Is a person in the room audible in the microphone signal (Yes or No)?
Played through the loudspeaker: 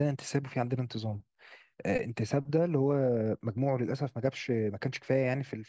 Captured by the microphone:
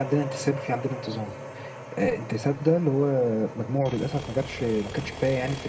No